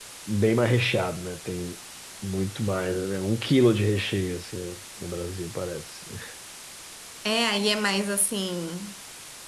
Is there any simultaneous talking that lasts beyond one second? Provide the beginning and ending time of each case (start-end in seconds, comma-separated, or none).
none